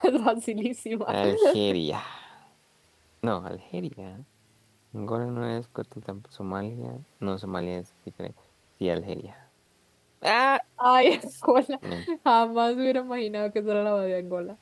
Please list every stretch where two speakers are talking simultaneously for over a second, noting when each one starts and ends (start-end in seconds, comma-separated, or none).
none